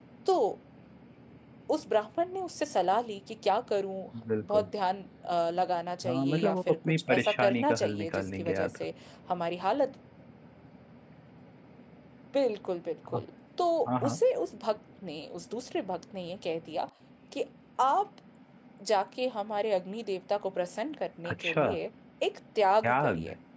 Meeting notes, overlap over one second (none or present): present